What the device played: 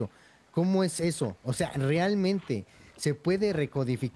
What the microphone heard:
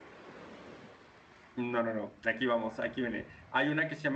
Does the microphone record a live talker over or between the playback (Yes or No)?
Yes